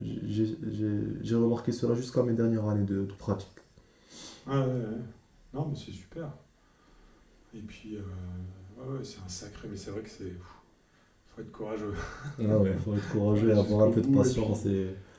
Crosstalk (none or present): present